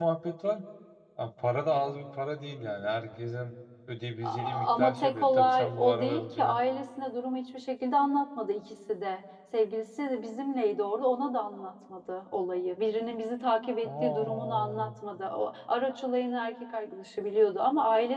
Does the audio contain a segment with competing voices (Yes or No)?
Yes